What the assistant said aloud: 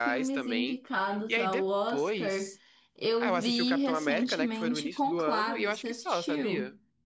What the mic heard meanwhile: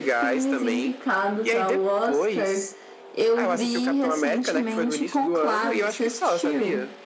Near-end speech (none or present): none